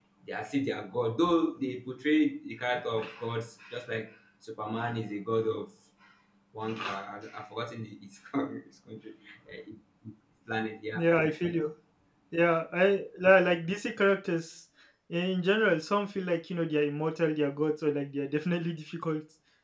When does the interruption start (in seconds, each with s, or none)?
none